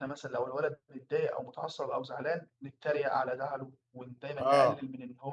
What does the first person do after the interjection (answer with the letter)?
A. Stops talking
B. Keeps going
B